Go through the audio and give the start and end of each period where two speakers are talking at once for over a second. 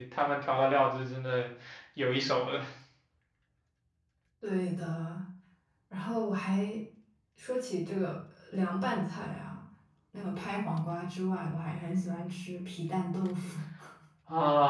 none

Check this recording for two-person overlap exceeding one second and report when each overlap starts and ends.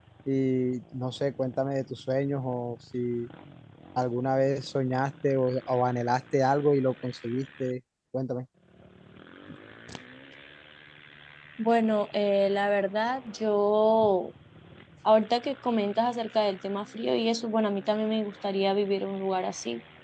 none

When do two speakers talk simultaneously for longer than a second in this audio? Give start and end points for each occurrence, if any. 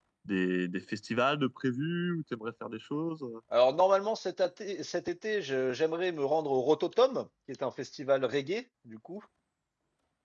none

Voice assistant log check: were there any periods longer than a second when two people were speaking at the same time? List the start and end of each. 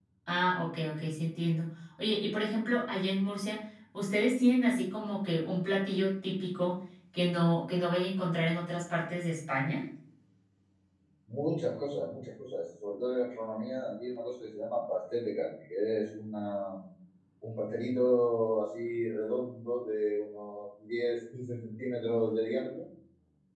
none

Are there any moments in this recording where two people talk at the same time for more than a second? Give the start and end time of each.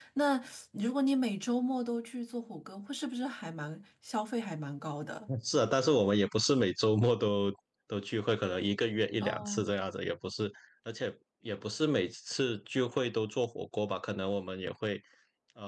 none

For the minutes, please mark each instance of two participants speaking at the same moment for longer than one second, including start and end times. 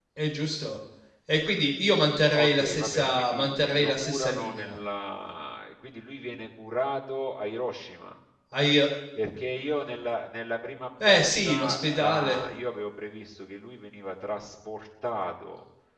2.2-4.8, 11.0-12.5

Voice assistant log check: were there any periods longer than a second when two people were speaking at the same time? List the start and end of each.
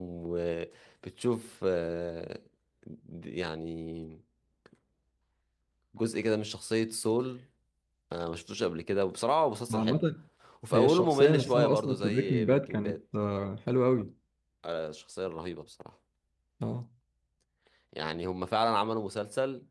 10.7-13.0

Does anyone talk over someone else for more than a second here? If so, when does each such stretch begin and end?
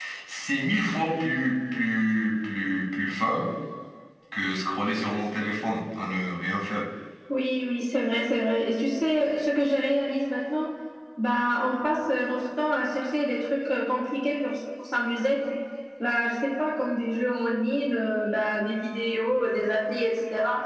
none

